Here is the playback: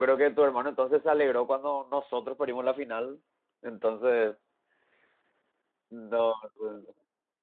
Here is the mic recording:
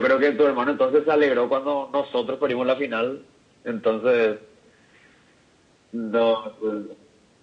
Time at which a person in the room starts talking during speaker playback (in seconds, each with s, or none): none